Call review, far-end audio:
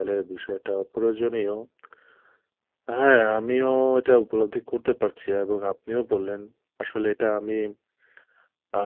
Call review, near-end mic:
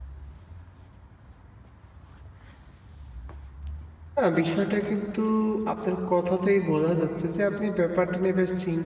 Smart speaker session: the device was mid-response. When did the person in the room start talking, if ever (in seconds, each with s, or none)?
4.2 s